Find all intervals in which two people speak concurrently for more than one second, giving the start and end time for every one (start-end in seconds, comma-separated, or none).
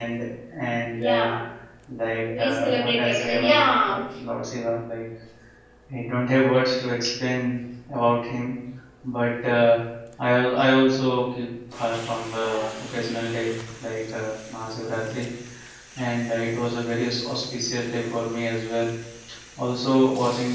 2.4-4.0